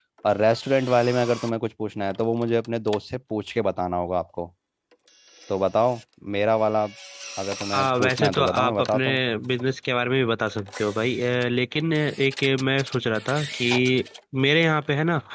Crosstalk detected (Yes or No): Yes